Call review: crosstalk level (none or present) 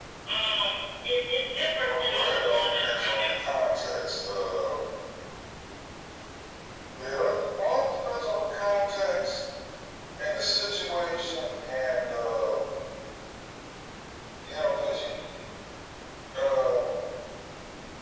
present